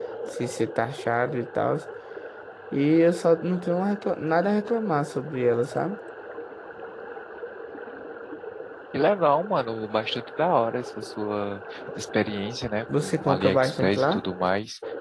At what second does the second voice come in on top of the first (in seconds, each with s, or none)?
12.9 s